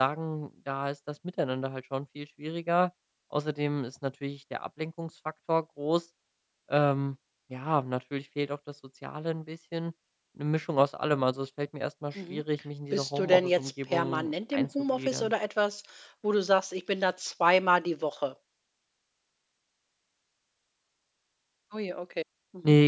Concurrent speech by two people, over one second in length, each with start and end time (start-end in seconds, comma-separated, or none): 12.9-15.3